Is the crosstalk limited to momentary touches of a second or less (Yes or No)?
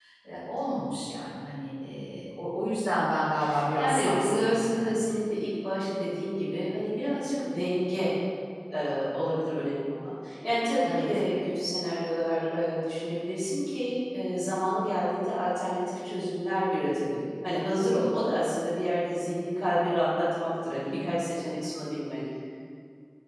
No